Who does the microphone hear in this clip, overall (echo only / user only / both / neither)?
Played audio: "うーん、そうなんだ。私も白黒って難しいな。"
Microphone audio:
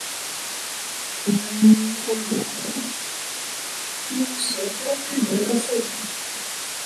echo only